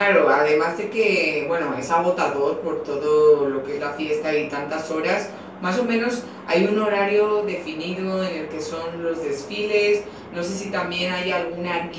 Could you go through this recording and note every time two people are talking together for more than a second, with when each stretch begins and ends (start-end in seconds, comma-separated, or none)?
none